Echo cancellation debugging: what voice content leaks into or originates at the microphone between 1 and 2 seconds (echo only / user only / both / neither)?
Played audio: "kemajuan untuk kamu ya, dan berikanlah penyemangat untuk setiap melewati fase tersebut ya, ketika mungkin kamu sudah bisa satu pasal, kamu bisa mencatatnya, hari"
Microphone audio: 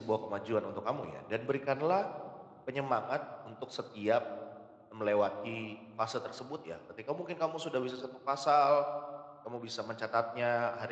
echo only